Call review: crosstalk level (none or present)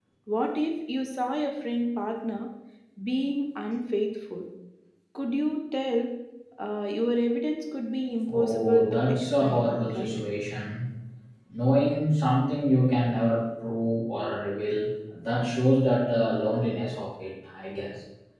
present